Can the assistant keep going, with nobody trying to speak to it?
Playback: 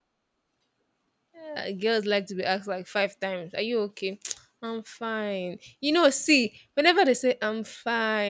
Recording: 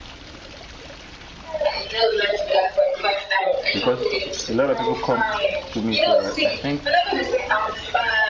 No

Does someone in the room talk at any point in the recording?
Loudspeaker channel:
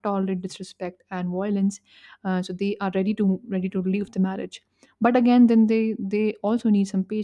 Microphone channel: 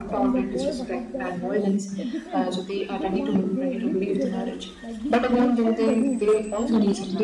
Yes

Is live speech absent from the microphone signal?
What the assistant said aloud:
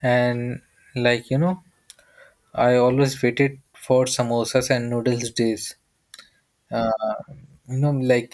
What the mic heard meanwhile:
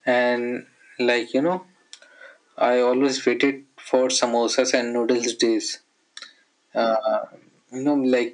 Yes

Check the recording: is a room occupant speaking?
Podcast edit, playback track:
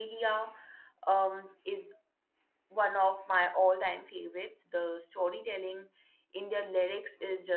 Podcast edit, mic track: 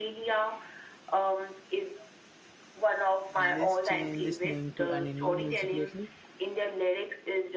Yes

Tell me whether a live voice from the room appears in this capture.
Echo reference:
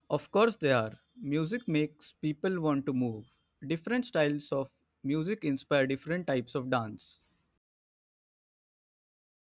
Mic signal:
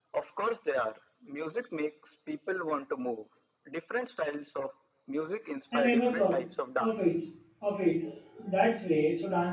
Yes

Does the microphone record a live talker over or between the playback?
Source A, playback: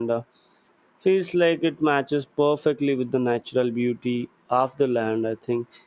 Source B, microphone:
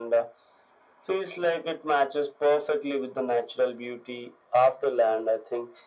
No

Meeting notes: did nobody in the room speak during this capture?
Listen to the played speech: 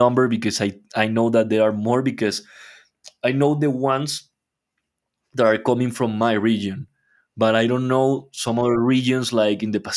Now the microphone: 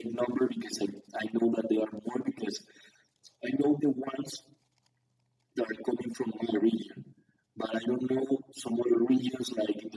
Yes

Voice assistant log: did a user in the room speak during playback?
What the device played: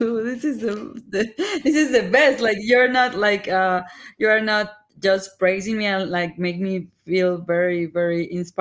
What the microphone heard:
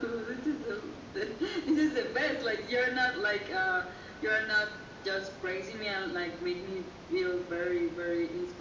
No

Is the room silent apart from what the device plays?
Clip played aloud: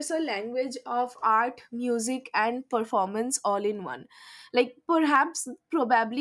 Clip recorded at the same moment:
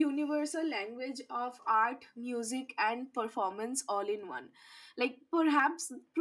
Yes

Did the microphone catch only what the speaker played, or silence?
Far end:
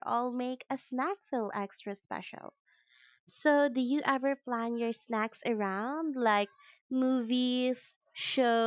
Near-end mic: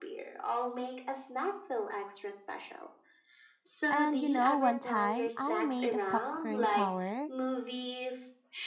No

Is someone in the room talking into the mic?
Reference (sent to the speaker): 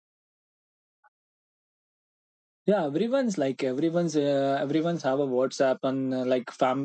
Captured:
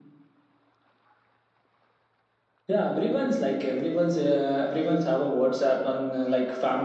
No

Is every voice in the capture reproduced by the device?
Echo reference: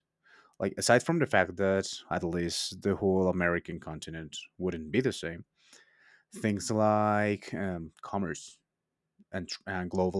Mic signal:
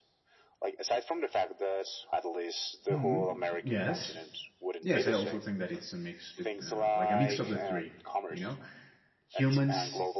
No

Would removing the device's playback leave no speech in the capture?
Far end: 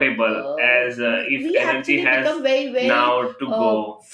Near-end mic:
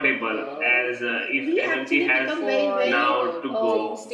No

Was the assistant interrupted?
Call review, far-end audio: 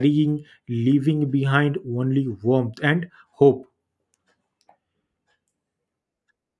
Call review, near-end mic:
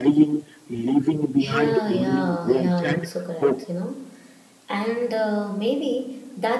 Yes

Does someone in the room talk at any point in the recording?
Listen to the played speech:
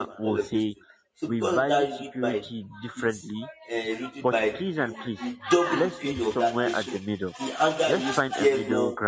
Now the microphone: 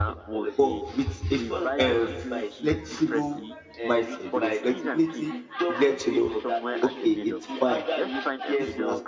Yes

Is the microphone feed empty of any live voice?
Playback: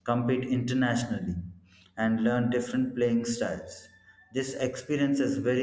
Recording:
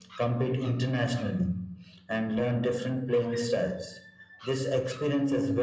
Yes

